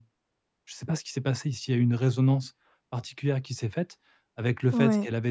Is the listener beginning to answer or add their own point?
No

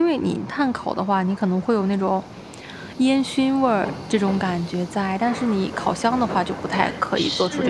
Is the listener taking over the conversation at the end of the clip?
Yes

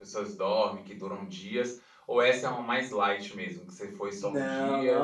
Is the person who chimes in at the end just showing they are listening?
No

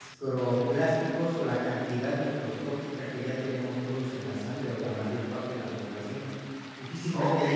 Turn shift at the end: Yes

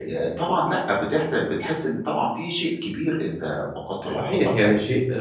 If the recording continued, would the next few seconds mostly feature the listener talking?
Yes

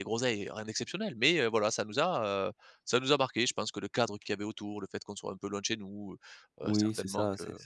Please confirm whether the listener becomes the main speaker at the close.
Yes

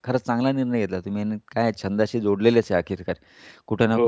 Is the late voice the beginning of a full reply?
No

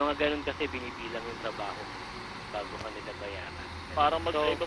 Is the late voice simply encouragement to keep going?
No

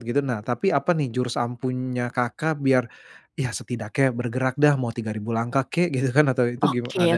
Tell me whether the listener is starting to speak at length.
Yes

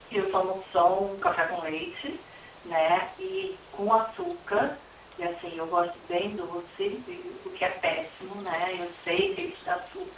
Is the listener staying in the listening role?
Yes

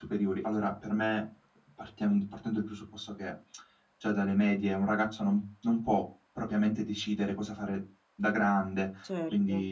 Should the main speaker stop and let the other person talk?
No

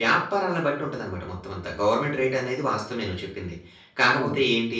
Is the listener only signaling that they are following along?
Yes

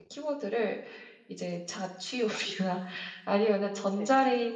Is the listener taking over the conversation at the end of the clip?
No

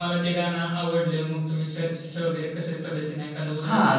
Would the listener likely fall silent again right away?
No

